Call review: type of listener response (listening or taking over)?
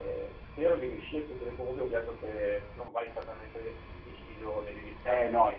taking over